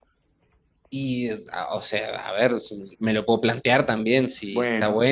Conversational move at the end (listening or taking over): listening